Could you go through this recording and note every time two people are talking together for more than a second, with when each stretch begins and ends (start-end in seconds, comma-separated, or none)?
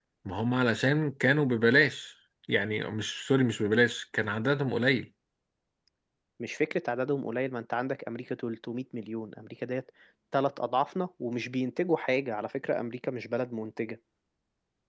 none